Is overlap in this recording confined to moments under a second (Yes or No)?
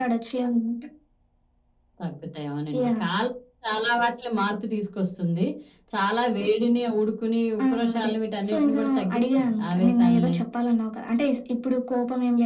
No